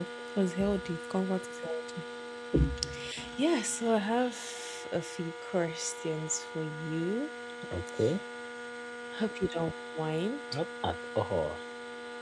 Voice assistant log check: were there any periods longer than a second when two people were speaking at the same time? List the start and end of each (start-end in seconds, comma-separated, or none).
none